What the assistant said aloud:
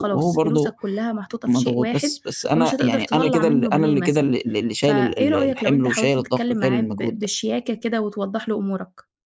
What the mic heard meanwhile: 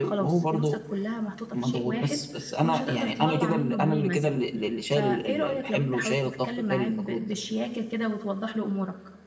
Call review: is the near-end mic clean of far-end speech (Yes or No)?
No